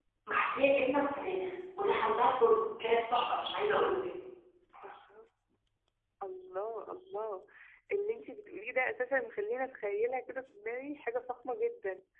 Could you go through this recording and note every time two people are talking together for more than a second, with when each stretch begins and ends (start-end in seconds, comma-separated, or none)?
none